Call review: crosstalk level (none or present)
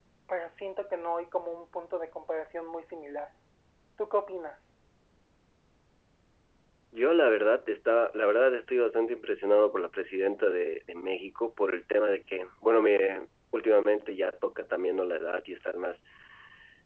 none